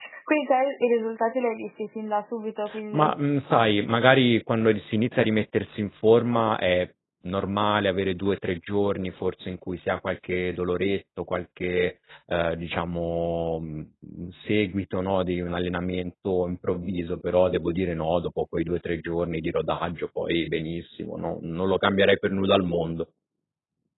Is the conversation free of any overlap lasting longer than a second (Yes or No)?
Yes